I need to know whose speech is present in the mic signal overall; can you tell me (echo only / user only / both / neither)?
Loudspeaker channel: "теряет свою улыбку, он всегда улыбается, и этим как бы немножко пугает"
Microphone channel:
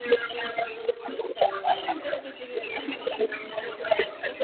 both